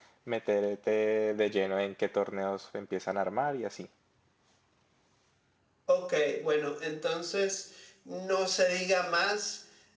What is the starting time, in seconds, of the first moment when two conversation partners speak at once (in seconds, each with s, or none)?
none